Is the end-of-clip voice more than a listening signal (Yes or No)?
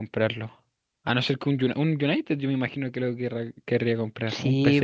Yes